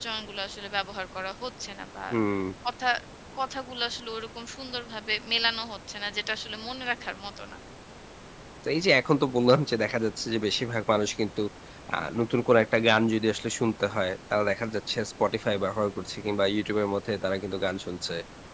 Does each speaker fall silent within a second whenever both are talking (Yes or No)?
Yes